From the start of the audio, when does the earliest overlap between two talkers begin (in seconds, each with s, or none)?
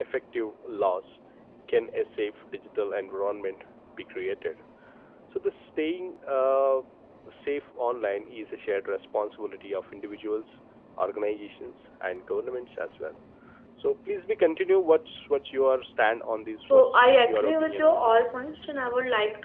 16.6 s